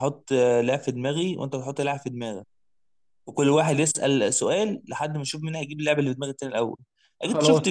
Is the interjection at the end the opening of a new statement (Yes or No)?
No